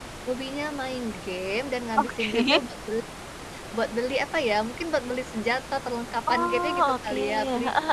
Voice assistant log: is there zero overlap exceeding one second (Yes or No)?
No